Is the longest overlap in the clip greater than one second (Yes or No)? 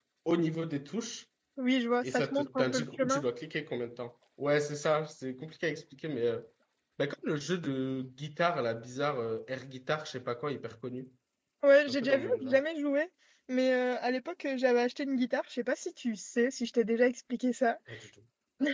Yes